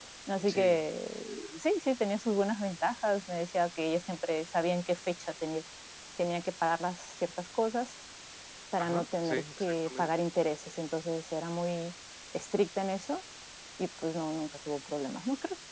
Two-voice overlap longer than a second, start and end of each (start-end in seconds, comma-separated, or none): 8.8-10.1